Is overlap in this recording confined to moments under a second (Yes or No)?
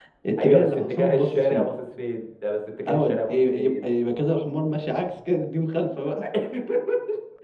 No